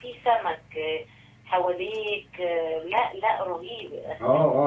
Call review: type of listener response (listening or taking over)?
taking over